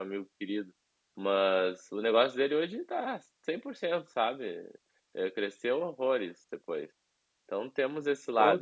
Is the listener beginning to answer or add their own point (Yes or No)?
Yes